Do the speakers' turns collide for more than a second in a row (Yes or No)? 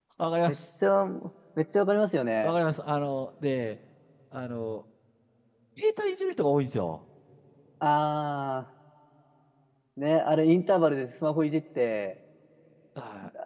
No